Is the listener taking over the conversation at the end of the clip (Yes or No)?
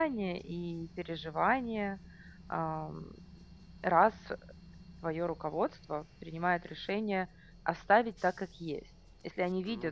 No